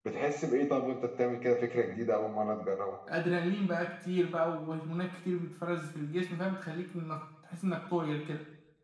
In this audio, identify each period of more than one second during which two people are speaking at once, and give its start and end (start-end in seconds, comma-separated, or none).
none